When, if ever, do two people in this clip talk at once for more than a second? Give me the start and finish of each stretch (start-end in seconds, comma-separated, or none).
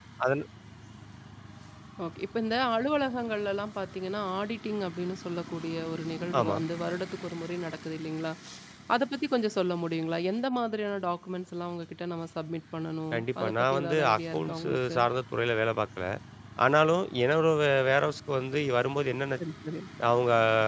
13.1-15.0